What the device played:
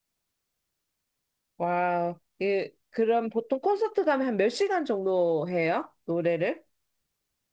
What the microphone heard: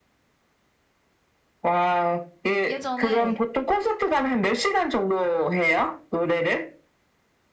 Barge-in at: 2.7 s

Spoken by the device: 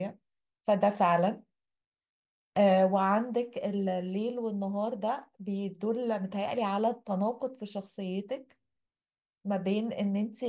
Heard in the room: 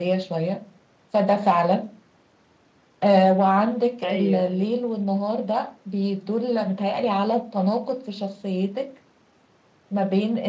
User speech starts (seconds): 4.0 s

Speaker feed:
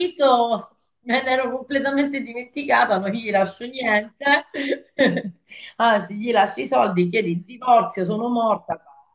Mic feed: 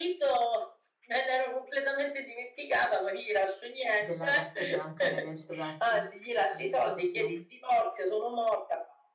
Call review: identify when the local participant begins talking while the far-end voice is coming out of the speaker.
3.9 s

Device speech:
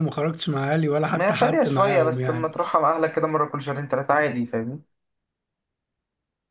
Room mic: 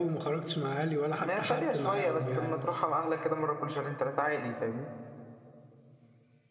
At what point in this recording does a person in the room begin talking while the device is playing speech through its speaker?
2.2 s

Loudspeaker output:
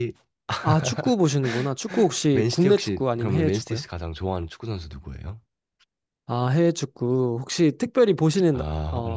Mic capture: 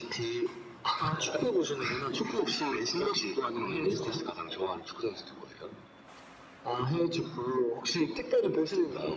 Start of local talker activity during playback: none

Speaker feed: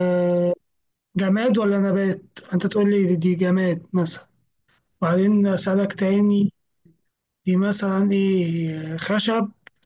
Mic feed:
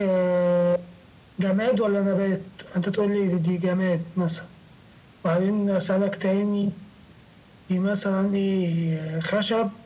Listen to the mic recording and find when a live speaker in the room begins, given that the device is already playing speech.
none

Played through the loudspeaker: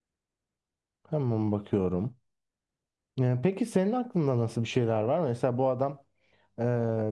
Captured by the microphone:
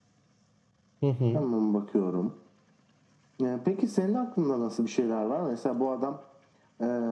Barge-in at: 1.0 s

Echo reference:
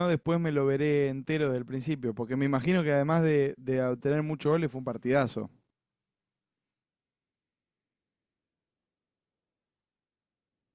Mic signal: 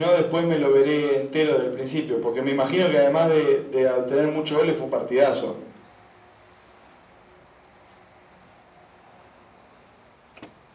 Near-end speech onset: none

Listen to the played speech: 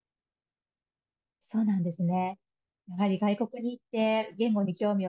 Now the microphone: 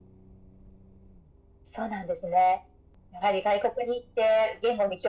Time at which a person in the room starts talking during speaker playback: none

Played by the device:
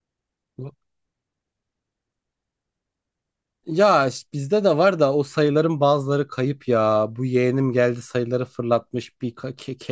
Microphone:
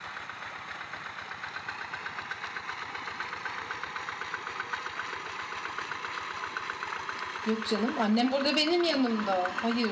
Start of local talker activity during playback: 7.4 s

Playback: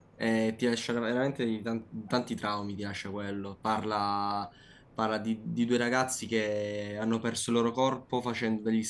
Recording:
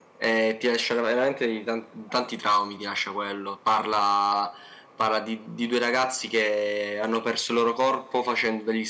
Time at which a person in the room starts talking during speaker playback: none

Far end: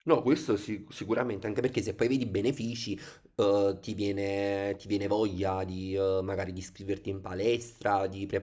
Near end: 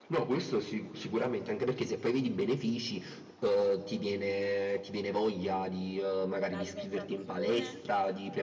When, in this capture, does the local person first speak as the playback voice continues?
6.5 s

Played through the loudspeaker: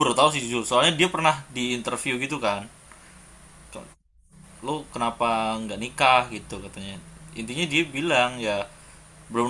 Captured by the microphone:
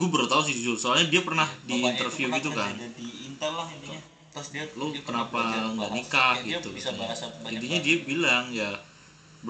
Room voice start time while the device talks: 1.4 s

